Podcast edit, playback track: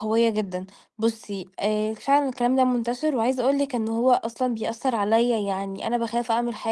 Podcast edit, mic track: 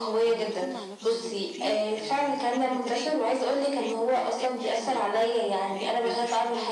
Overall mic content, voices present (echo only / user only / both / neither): both